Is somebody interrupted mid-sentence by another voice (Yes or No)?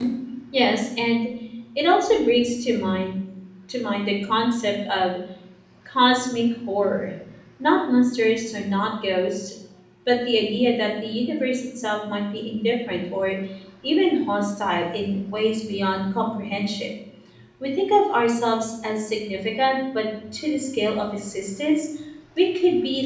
No